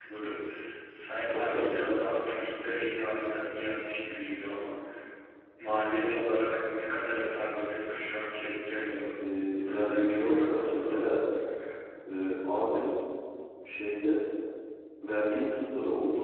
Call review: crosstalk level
present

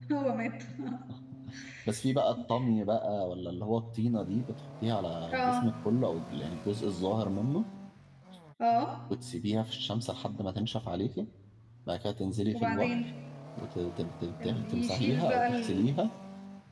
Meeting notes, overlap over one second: present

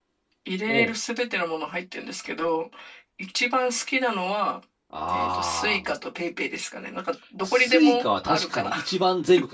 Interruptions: present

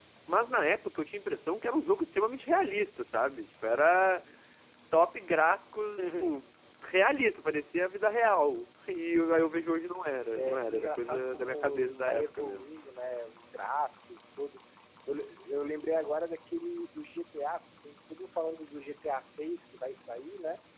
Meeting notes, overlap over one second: present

